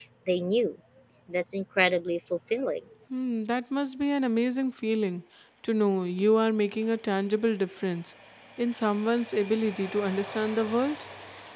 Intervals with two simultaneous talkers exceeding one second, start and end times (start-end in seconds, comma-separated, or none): none